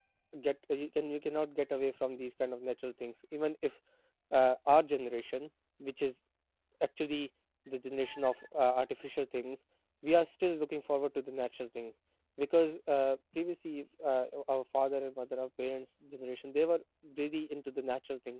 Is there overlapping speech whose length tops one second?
No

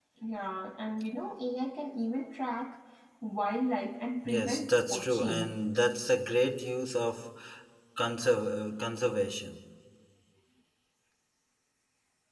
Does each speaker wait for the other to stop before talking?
No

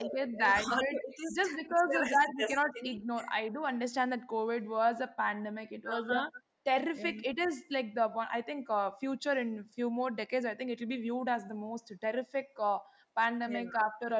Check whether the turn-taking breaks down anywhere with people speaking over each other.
Yes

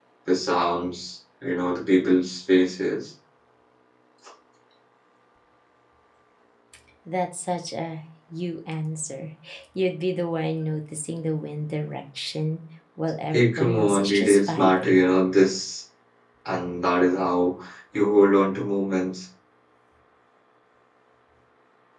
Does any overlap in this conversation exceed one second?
Yes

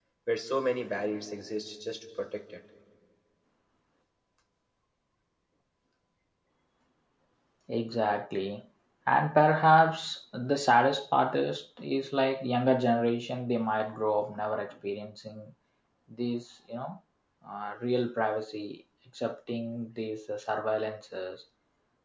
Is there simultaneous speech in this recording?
No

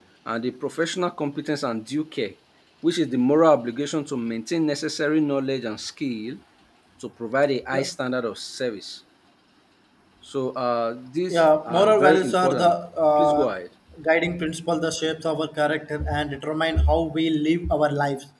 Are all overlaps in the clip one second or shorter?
No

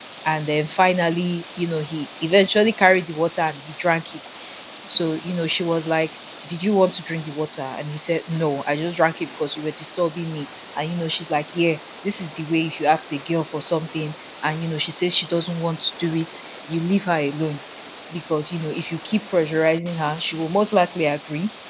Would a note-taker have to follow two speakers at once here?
No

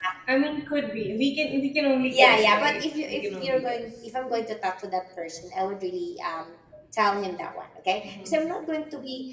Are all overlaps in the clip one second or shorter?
No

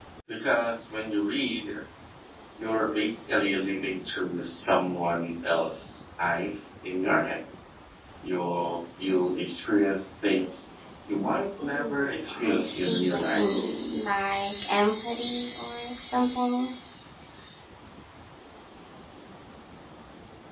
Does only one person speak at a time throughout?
No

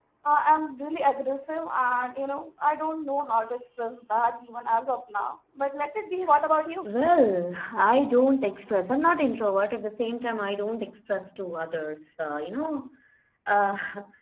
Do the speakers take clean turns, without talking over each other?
Yes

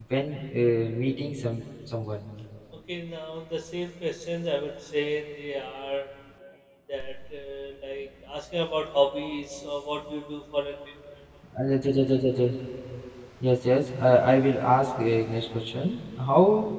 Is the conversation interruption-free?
Yes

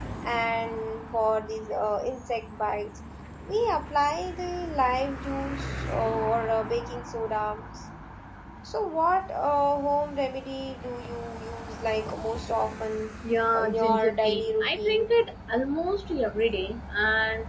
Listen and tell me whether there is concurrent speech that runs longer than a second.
Yes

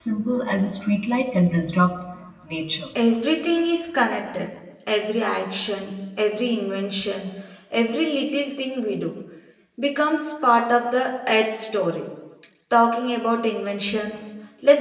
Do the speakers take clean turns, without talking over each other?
Yes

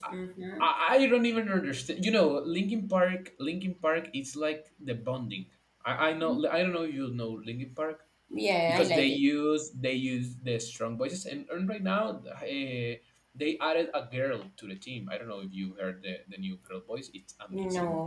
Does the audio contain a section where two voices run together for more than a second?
No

